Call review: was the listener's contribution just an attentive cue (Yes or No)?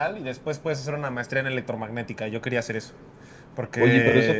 No